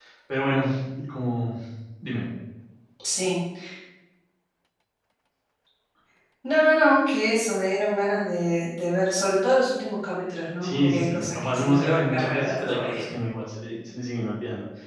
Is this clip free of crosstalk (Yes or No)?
No